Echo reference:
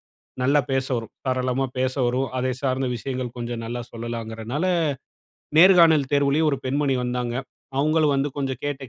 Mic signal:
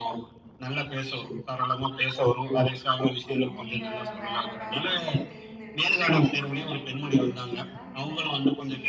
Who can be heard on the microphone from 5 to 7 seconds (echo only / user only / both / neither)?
both